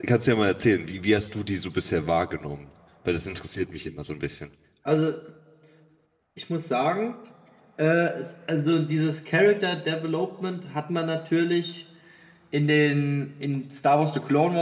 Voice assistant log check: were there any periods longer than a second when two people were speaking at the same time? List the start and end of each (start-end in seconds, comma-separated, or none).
none